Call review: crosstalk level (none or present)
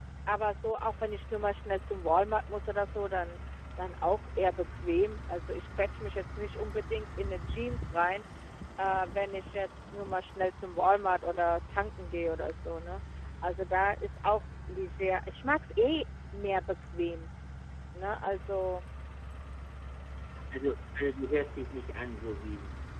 none